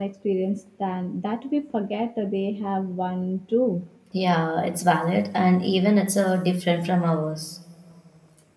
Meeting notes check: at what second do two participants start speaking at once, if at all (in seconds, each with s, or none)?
none